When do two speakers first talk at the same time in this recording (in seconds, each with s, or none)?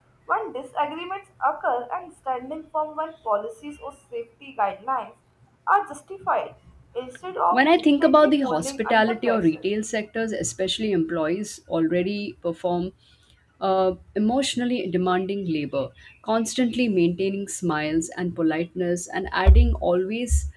7.5 s